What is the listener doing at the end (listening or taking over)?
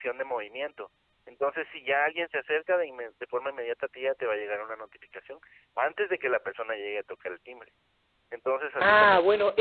taking over